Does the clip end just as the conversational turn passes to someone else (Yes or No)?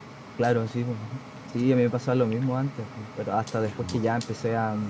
No